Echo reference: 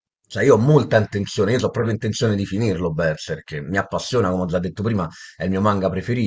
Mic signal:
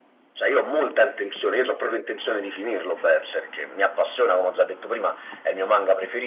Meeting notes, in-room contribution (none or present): none